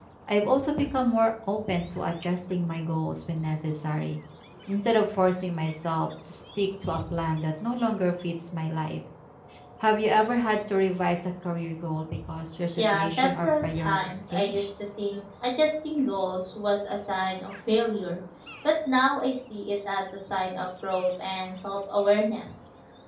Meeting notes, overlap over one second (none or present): present